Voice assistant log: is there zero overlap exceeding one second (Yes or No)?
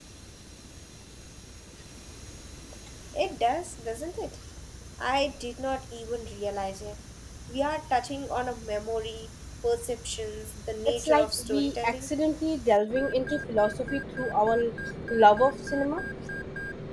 No